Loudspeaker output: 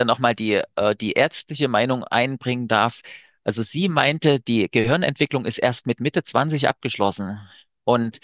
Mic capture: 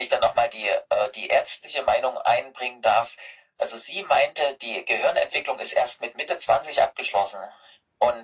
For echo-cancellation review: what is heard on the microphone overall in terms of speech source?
echo only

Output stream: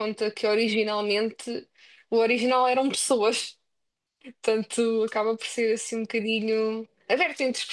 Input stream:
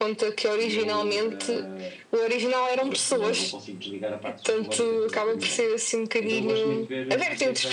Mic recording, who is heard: both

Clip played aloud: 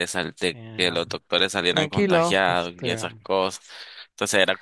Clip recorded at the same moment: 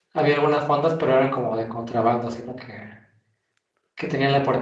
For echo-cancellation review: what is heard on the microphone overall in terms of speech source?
user only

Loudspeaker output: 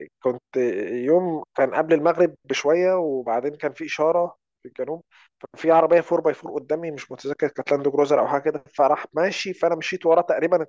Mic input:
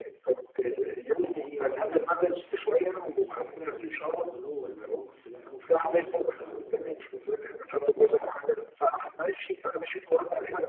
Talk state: both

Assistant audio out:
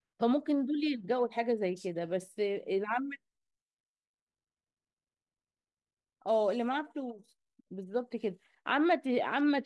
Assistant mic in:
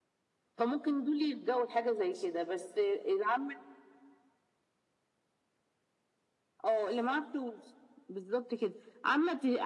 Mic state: echo only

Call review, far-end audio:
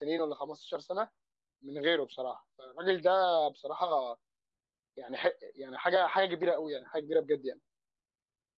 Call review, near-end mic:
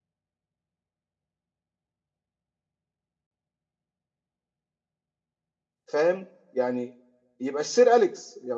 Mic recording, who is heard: user only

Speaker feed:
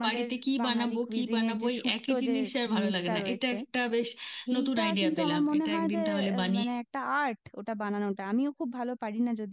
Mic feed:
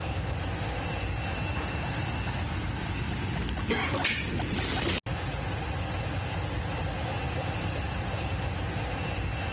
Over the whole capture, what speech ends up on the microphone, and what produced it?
neither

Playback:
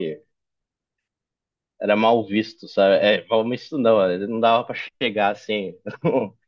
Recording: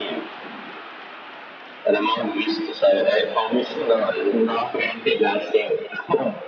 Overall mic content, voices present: echo only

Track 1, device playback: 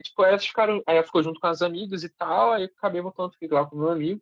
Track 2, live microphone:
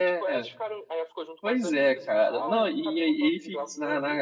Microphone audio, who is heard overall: both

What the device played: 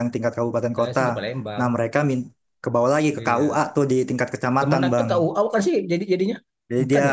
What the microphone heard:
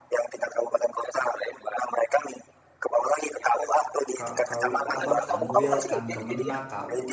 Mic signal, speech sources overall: both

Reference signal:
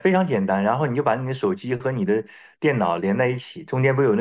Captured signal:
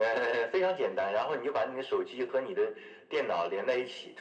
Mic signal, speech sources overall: echo only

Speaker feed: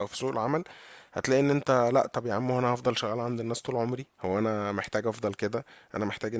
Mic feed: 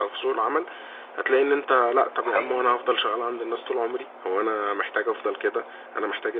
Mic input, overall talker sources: both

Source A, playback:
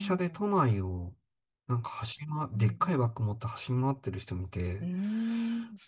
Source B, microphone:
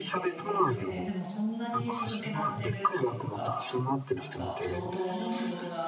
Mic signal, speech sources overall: both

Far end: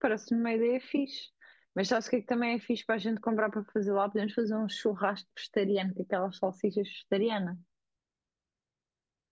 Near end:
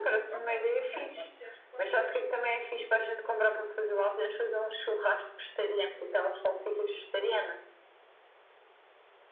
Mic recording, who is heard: both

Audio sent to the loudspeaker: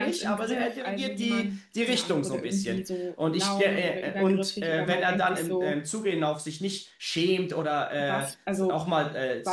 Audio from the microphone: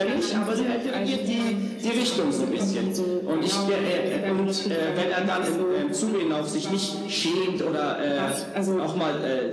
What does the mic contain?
both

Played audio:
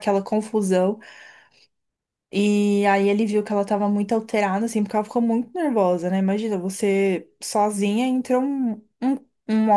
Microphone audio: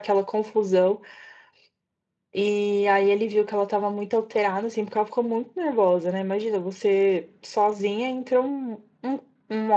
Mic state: echo only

